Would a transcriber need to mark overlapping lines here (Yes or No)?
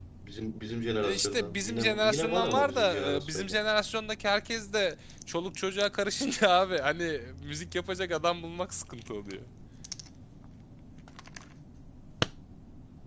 Yes